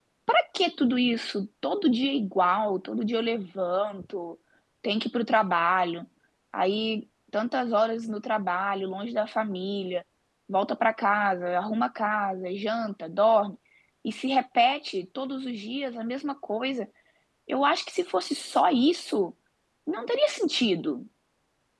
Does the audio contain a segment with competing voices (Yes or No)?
No